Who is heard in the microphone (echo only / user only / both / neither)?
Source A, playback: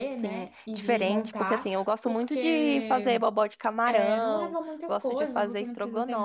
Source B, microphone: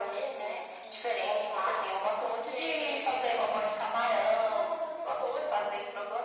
echo only